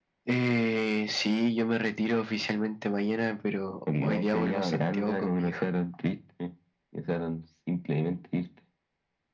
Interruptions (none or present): present